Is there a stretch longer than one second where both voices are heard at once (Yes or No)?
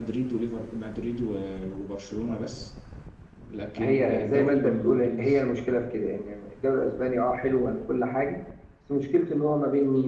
Yes